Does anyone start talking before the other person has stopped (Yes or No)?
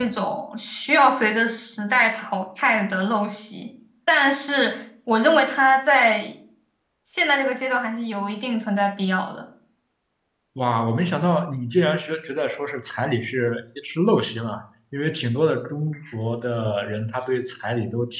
No